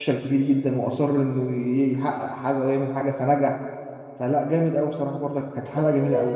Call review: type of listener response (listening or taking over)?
taking over